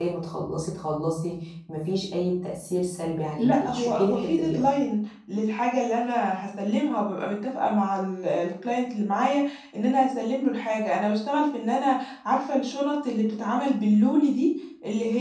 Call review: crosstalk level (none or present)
present